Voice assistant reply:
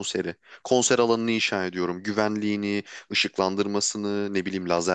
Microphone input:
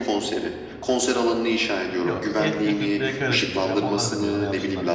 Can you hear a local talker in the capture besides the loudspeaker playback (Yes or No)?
Yes